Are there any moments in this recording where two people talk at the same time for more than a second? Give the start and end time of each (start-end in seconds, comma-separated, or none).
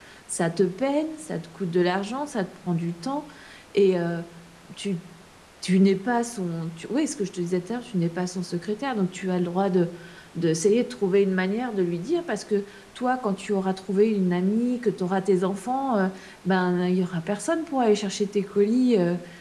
none